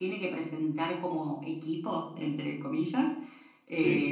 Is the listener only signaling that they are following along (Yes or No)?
Yes